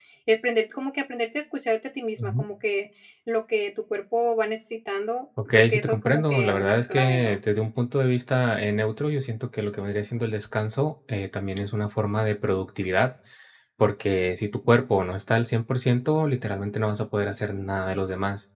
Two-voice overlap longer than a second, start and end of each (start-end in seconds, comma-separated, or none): 5.5-7.4